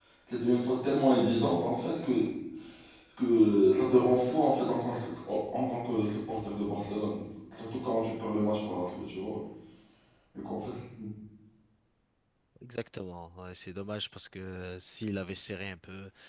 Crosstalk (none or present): none